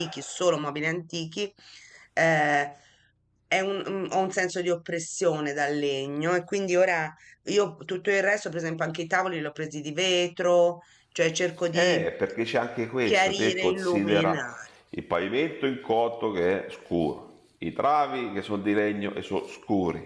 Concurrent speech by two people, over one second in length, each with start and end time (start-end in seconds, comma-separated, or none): 13.1-14.6